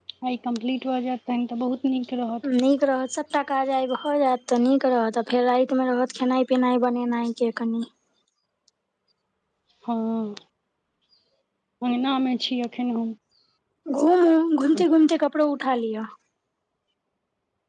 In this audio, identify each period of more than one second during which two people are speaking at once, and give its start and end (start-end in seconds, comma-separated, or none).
none